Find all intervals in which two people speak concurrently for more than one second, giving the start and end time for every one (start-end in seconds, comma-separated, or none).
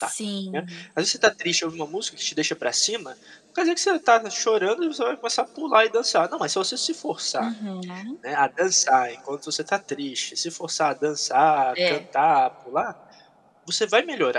none